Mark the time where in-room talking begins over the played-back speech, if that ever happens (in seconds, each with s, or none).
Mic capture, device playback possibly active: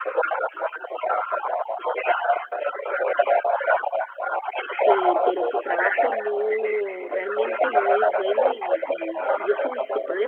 4.8 s